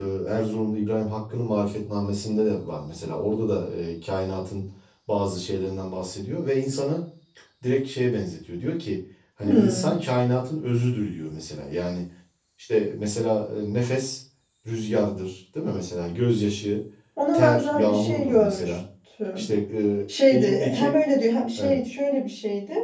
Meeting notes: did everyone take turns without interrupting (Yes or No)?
No